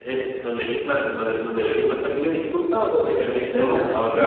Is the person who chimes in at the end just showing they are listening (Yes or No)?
No